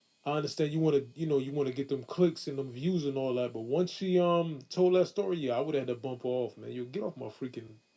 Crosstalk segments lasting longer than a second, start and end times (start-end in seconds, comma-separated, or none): none